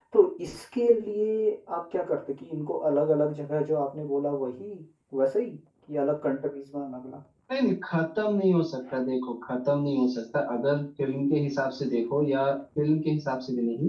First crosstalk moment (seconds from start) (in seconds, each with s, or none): none